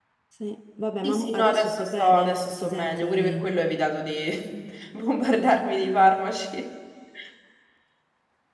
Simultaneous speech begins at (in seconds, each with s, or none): 1.0 s